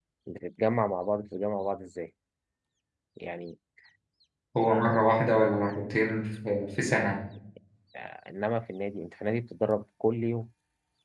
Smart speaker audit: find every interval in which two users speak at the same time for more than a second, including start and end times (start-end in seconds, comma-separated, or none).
none